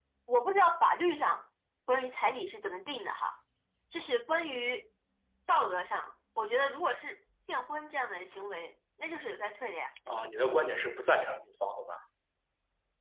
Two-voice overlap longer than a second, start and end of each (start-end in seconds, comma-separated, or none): none